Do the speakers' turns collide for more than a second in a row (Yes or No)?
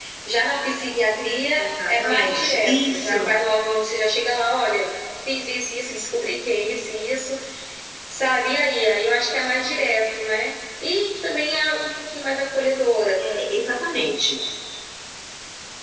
Yes